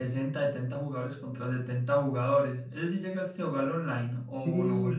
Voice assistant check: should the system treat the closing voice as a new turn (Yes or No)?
Yes